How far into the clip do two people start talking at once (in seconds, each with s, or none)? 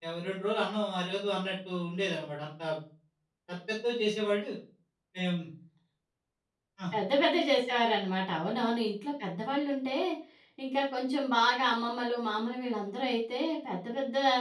none